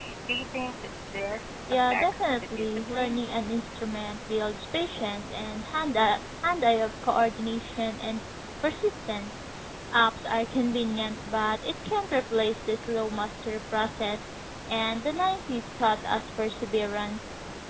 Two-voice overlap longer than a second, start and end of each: 1.7-3.2

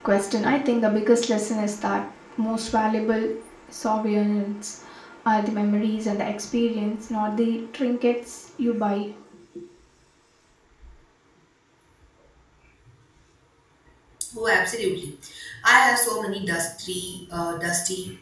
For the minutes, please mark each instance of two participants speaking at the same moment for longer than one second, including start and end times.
none

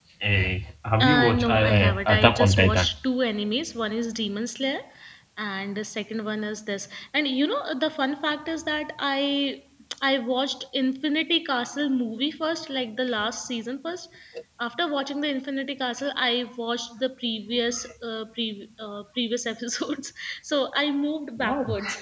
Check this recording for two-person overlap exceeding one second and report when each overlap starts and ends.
1.1-2.9

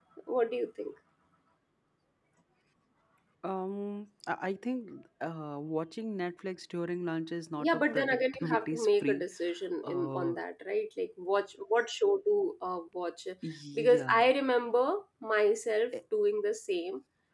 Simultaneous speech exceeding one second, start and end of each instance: 7.6-9.2

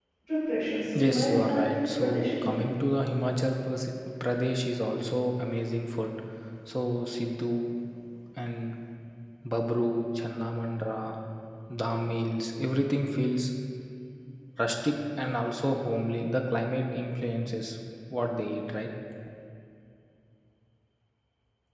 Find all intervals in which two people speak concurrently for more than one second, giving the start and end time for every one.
1.0-2.6

